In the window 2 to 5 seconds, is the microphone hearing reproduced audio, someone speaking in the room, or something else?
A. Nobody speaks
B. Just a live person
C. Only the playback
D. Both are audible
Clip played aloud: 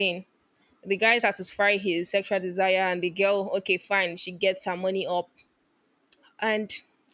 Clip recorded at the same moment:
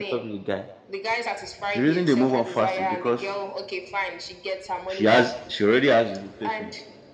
D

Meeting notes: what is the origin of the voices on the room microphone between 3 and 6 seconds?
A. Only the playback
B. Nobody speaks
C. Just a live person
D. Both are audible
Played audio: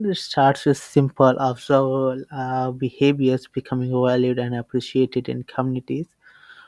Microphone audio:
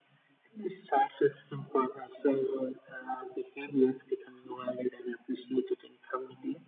A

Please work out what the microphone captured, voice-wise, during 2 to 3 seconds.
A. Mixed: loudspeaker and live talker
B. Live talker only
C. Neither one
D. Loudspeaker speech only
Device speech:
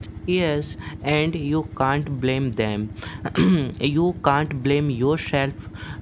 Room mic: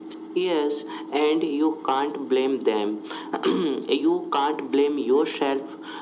D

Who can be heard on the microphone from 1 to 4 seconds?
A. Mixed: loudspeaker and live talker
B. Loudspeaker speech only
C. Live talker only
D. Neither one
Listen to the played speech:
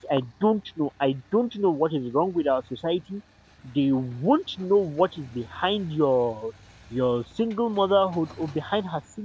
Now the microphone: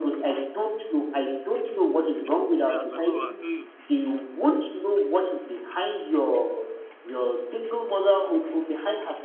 A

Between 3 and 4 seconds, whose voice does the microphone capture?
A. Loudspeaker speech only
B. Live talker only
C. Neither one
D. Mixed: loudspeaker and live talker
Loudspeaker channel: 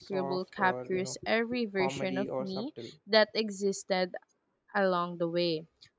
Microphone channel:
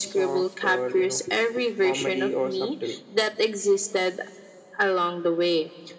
A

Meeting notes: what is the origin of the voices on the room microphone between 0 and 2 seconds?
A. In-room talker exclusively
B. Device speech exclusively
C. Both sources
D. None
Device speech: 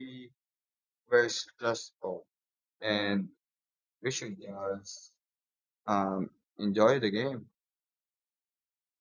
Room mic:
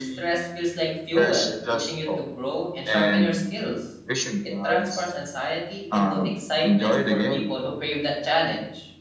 C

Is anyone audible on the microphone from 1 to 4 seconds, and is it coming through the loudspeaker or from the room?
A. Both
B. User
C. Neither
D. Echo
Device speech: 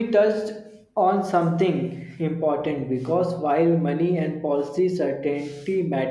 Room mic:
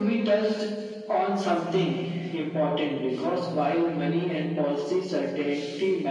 D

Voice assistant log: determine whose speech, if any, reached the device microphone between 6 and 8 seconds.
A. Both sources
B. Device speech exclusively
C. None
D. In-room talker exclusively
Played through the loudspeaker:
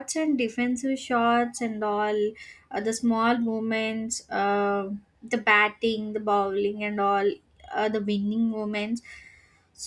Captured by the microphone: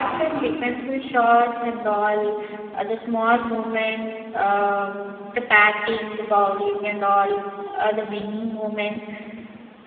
B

